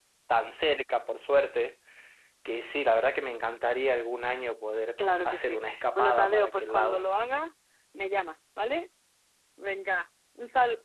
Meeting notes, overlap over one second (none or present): present